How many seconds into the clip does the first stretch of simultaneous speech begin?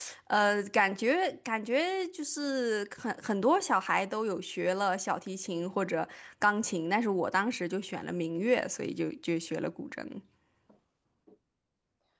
none

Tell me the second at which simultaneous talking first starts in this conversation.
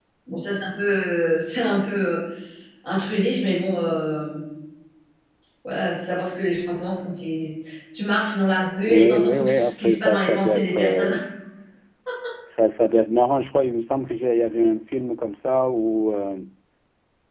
9 s

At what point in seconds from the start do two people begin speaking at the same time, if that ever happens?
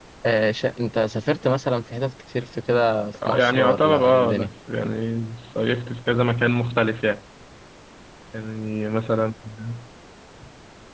3 s

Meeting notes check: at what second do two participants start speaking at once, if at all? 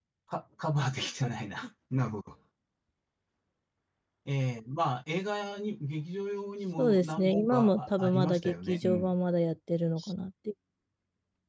7 s

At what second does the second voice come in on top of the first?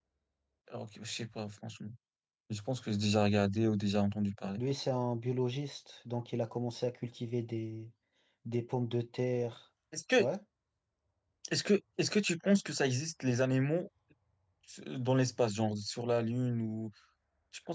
none

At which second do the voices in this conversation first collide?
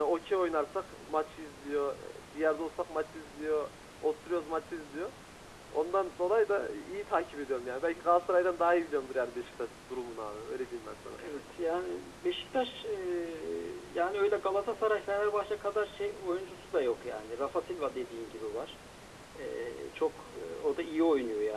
none

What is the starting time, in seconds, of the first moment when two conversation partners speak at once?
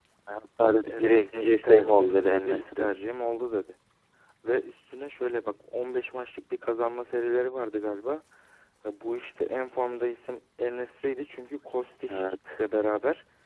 1 s

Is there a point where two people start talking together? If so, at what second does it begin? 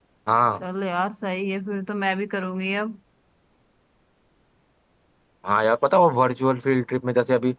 none

